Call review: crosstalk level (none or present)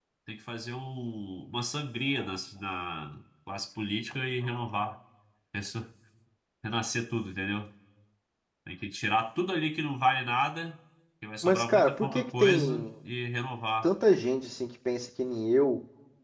present